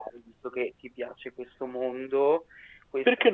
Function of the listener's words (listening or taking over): listening